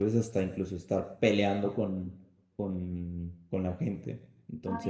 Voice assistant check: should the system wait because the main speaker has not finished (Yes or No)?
No